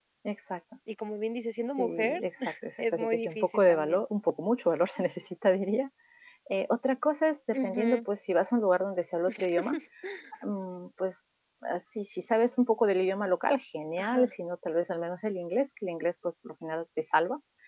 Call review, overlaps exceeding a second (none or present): present